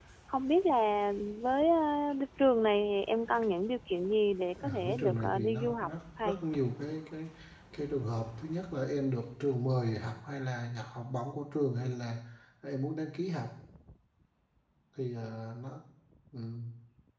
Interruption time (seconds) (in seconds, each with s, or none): 4.6 s